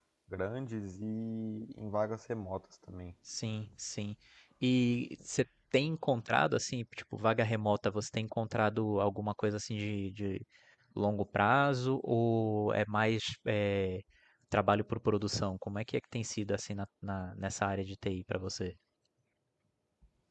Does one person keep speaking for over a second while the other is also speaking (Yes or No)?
No